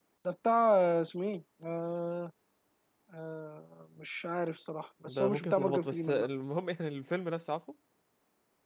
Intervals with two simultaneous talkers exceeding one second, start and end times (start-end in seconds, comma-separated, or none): 5.0-6.3